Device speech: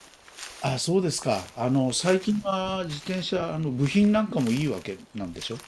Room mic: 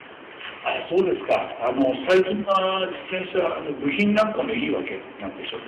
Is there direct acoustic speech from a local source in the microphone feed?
No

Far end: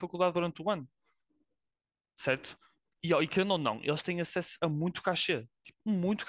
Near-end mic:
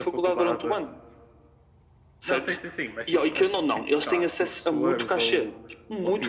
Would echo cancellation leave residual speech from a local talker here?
Yes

